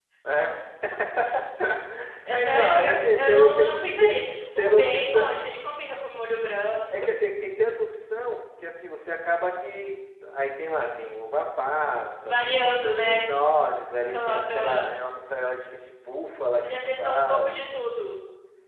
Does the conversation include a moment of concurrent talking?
Yes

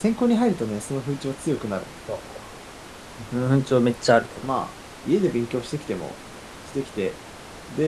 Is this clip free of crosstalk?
Yes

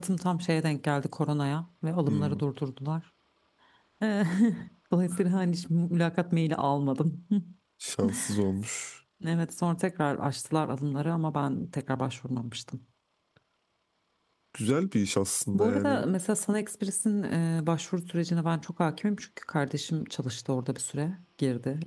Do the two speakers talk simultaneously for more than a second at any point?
No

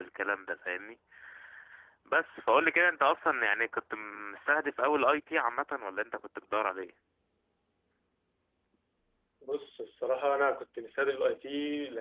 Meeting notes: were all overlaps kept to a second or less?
Yes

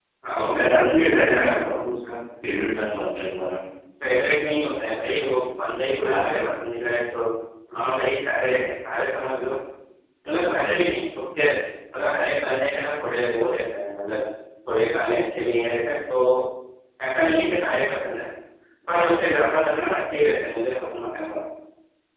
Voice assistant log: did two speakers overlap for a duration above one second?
Yes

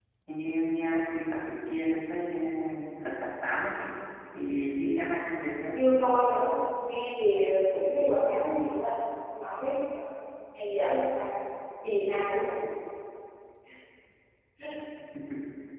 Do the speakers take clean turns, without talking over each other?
Yes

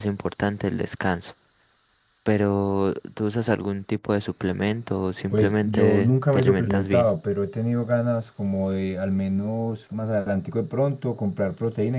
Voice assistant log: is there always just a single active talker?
No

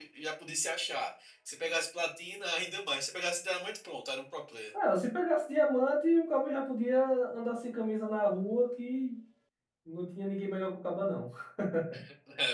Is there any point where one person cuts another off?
No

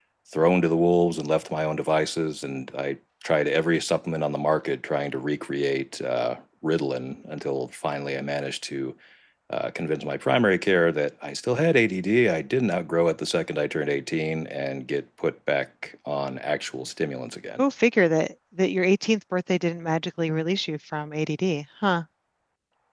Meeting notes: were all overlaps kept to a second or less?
Yes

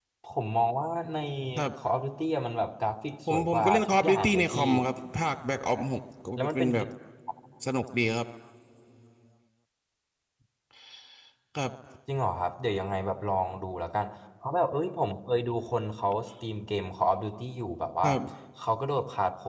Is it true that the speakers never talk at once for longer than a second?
No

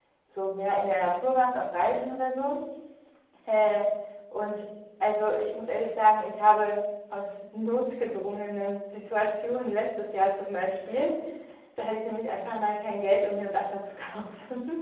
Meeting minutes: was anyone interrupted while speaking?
No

